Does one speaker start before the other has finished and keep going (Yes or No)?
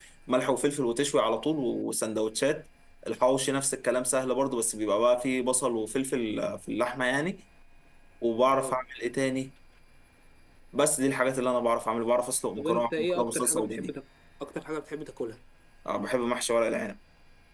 Yes